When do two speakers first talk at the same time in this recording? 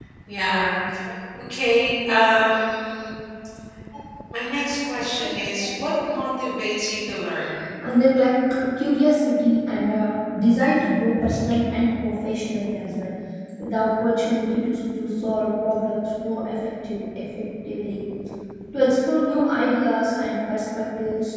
none

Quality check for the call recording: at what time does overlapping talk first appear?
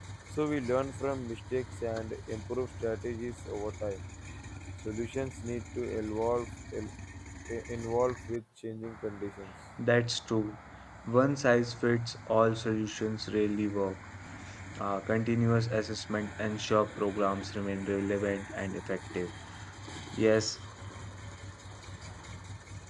none

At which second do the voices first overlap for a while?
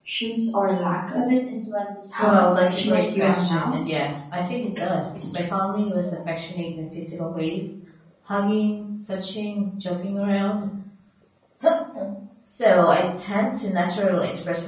2.1 s

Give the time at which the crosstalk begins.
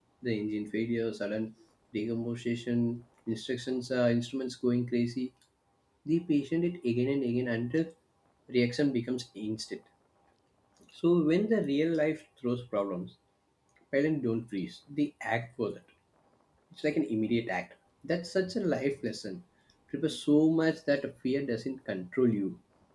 none

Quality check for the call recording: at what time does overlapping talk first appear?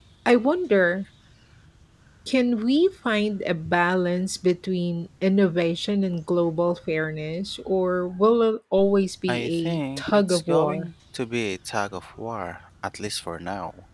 9.3 s

